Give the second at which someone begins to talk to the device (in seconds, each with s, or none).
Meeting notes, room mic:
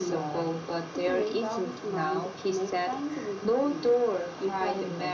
none